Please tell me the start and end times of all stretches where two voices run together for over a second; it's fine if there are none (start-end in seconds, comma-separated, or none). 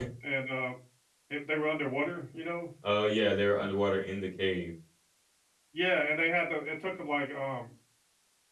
none